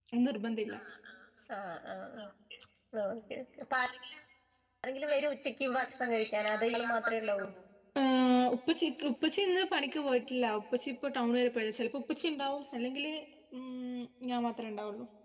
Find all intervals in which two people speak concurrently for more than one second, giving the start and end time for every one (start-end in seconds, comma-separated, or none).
5.1-7.4